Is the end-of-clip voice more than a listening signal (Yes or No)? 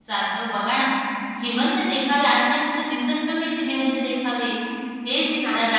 No